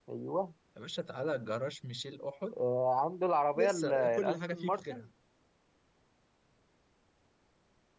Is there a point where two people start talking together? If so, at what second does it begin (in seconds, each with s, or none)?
3.6 s